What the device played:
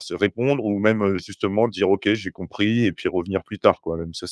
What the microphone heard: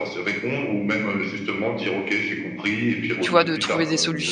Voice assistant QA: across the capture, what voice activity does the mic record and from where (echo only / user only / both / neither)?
both